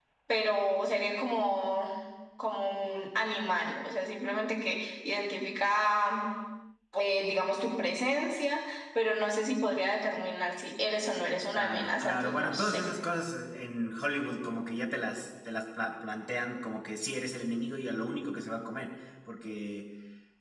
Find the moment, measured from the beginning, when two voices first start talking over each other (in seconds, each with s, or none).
11.5 s